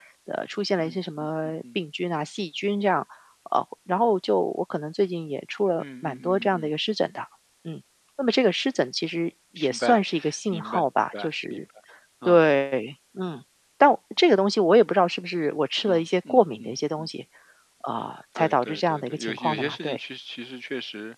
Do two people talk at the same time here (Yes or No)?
Yes